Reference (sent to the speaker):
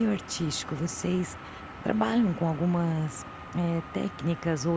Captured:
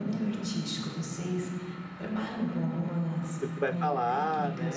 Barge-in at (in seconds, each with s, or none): 3.4 s